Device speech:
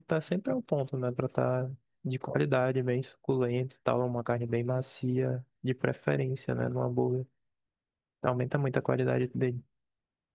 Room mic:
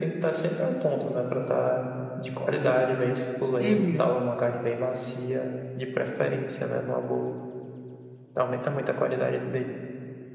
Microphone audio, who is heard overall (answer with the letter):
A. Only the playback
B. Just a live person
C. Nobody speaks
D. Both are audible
D